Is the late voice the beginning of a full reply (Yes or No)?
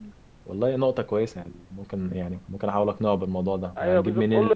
Yes